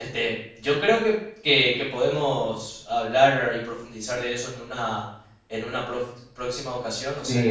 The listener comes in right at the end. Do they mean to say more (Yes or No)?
Yes